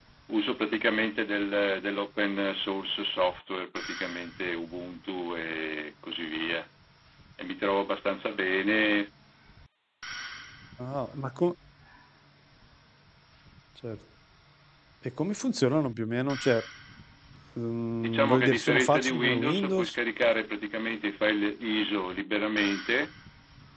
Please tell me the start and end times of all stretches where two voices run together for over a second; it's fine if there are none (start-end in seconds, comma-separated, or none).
18.0-19.9